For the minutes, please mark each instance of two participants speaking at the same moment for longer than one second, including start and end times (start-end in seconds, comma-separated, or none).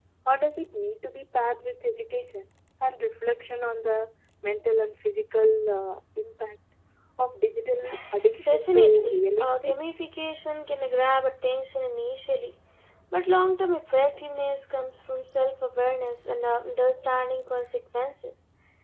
8.4-9.8